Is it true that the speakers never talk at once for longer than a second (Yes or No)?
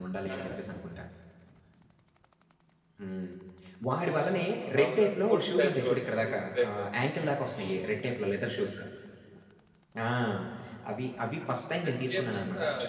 No